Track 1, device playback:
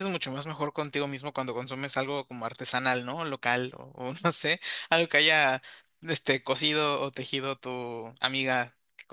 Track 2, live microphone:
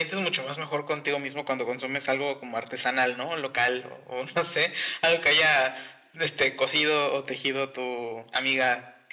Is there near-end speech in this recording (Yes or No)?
No